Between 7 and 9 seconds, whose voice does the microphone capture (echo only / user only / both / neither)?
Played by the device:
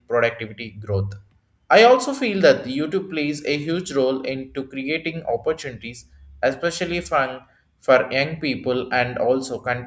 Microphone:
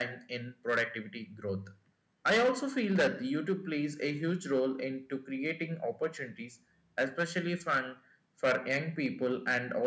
echo only